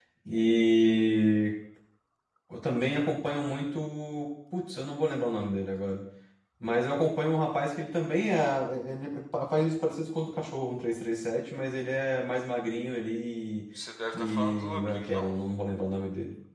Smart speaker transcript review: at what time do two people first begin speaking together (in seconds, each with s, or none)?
14.1 s